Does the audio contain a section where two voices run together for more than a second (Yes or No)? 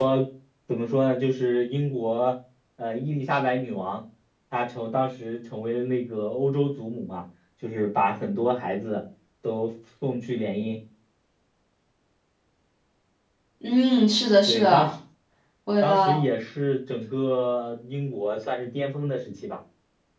No